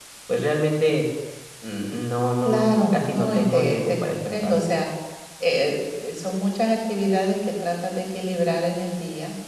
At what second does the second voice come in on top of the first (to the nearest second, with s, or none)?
2 s